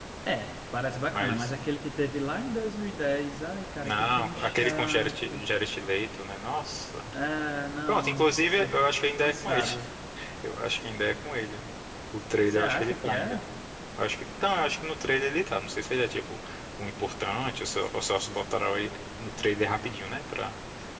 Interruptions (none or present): present